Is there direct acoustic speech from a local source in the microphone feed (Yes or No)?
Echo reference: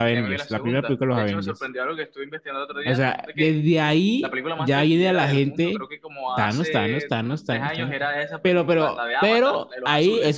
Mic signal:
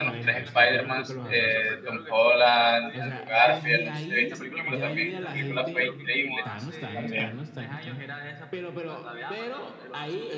Yes